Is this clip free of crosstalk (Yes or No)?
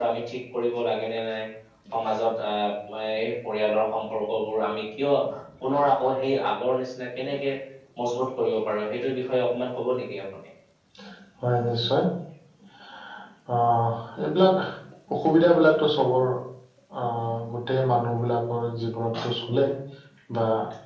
Yes